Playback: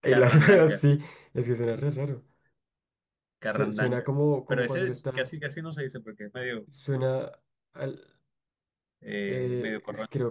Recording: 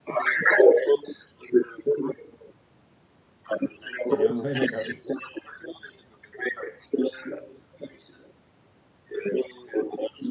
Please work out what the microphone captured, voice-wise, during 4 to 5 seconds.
both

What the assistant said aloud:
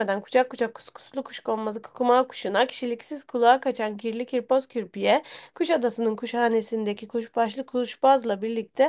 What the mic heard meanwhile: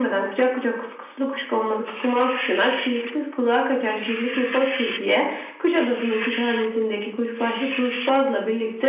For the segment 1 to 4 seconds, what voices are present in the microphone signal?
echo only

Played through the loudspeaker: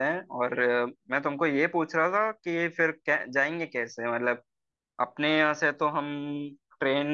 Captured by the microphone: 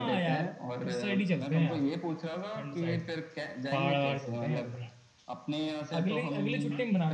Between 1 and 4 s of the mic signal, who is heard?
both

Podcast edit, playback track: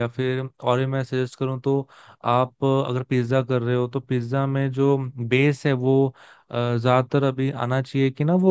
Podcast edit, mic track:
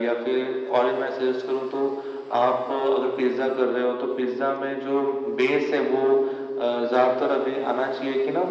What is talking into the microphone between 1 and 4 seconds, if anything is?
echo only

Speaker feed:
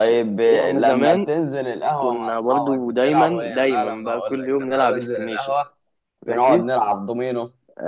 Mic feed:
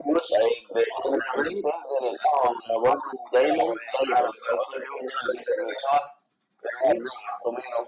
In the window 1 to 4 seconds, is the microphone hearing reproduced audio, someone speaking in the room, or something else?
echo only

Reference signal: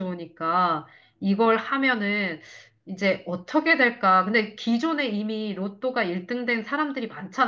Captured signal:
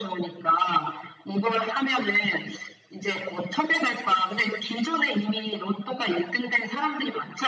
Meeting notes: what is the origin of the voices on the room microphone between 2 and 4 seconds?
echo only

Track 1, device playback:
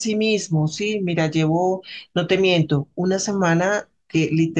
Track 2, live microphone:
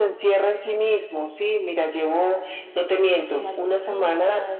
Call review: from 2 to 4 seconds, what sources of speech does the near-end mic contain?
both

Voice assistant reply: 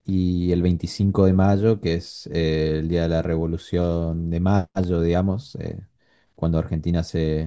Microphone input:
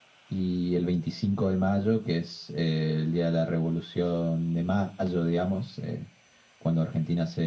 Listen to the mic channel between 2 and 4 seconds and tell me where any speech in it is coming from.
echo only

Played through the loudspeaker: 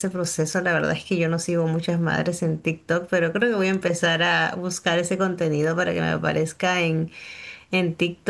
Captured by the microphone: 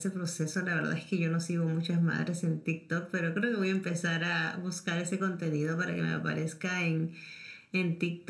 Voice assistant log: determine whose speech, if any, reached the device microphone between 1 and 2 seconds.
echo only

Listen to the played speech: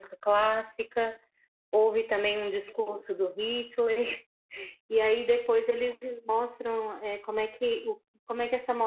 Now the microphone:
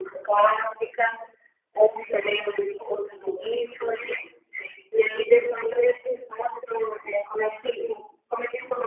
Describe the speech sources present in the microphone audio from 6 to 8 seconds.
echo only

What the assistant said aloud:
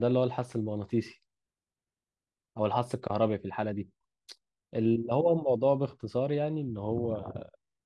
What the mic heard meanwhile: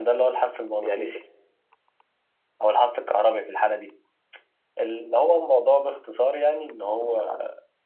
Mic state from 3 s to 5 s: echo only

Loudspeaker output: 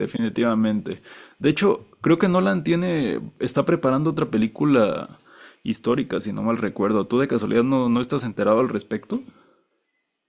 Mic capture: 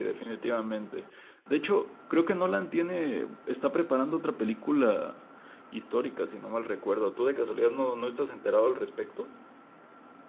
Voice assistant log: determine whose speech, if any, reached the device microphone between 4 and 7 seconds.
echo only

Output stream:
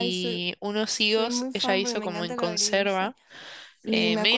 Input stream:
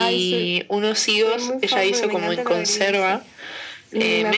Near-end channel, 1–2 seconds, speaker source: echo only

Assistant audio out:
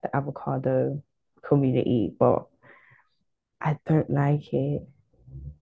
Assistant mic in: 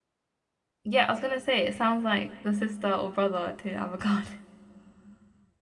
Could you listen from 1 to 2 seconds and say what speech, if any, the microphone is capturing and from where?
user only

